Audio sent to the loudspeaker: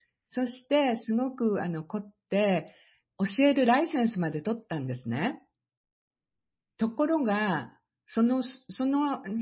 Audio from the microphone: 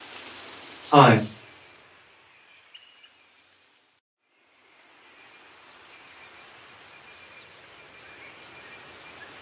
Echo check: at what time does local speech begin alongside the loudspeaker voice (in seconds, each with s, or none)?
0.9 s